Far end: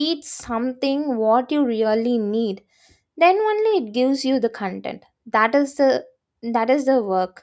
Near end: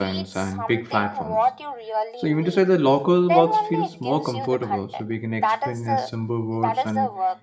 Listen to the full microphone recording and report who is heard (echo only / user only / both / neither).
both